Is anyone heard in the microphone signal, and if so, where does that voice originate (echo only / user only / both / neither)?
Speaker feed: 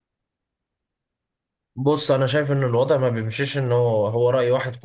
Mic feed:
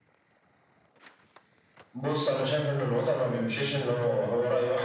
echo only